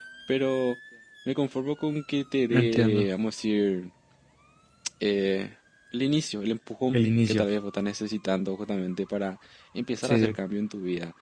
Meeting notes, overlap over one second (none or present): none